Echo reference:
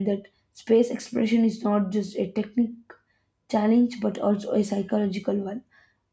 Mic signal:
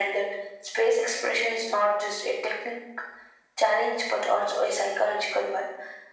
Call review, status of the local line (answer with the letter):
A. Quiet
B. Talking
A